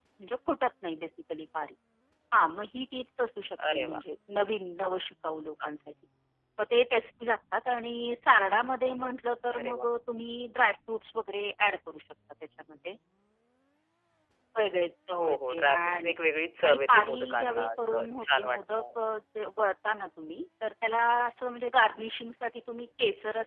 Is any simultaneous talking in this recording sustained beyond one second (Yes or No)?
Yes